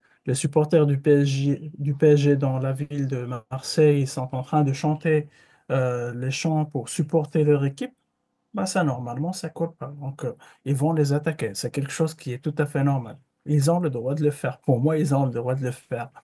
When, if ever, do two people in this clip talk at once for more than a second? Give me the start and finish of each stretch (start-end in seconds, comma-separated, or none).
none